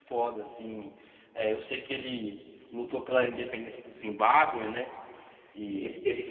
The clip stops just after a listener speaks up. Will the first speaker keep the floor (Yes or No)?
No